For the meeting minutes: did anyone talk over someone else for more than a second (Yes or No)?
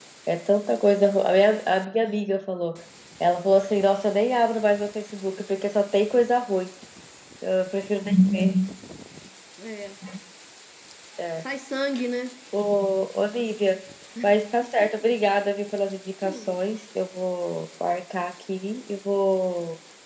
No